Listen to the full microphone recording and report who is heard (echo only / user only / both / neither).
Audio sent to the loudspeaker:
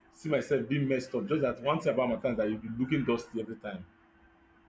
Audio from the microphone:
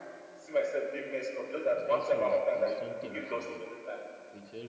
both